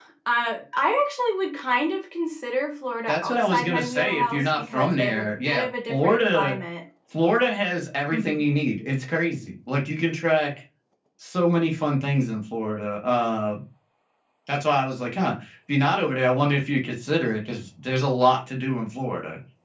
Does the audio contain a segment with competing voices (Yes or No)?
Yes